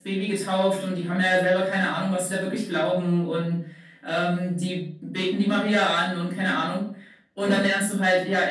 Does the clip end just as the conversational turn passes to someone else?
No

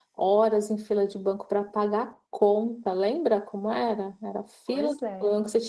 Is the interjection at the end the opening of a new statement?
No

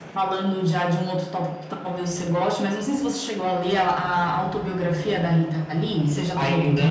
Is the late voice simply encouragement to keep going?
No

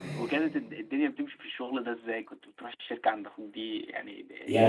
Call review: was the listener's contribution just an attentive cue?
No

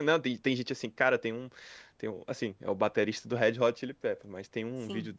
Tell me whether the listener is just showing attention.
Yes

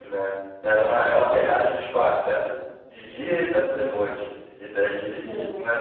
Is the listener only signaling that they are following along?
Yes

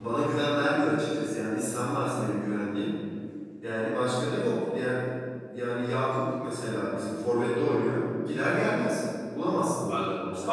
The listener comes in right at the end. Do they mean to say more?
Yes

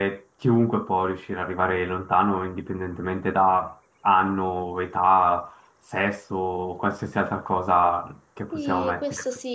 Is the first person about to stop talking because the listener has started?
Yes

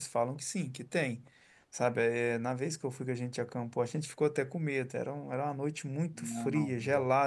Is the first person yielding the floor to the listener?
No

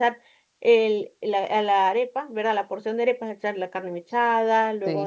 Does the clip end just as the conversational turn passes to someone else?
No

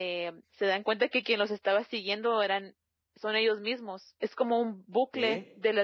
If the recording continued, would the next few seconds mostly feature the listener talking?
No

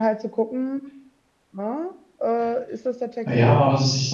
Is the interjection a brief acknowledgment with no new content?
No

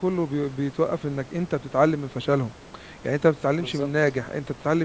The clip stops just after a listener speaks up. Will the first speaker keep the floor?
Yes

